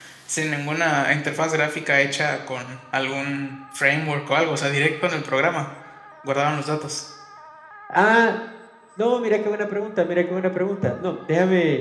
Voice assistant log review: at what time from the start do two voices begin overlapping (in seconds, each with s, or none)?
none